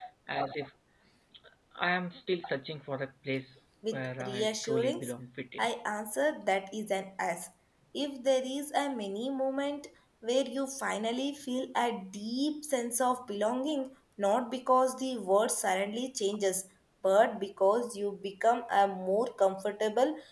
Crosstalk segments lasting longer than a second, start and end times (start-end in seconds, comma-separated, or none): 3.9-5.1